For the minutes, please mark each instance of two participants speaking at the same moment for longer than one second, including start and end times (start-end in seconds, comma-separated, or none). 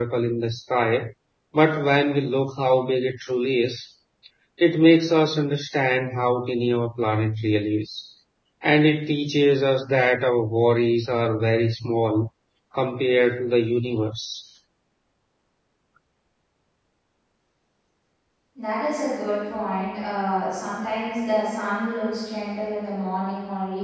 none